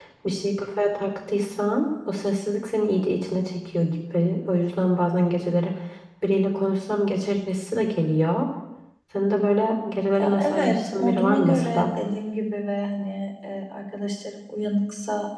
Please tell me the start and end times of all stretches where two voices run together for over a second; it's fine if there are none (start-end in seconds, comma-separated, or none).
10.2-11.8